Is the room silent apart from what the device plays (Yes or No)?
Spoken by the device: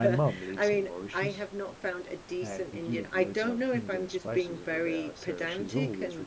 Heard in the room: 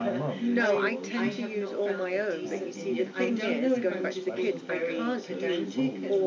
No